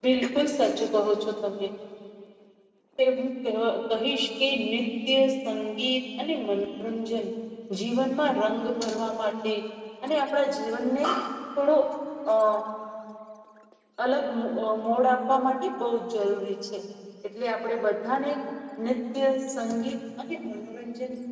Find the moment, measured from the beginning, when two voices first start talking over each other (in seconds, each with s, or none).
none